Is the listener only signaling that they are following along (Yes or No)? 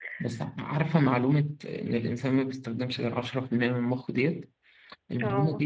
Yes